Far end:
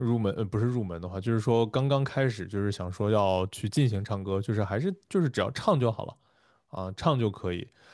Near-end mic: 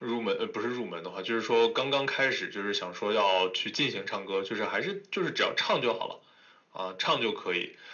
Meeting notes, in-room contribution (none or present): none